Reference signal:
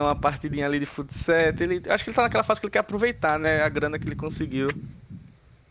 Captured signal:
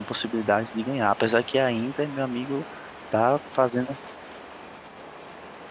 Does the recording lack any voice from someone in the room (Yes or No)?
No